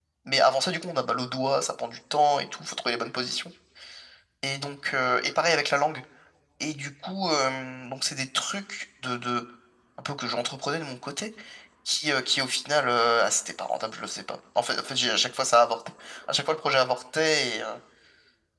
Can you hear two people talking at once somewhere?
No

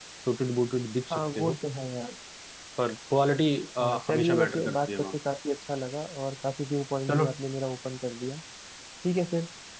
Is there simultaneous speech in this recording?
Yes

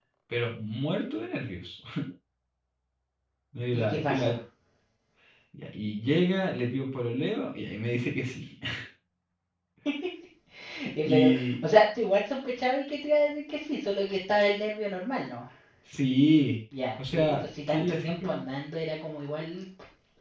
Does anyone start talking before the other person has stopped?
Yes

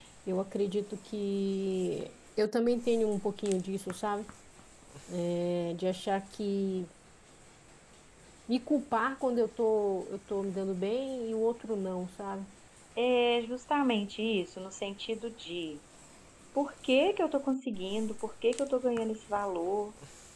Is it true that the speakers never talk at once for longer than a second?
Yes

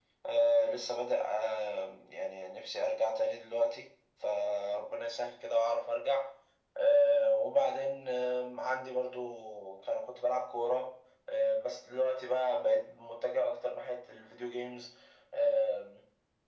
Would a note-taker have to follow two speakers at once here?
No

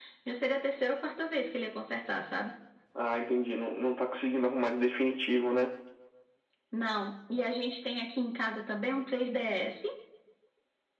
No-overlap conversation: Yes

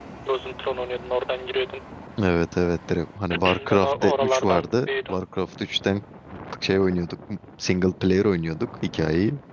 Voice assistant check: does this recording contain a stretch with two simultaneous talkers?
Yes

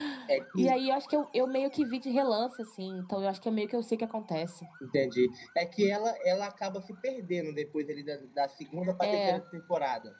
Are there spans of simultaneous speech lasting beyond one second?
No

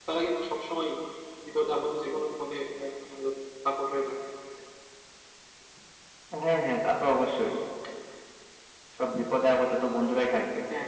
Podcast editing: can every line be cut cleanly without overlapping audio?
Yes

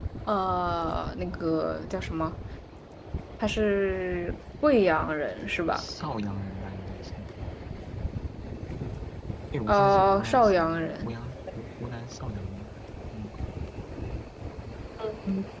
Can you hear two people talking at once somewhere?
Yes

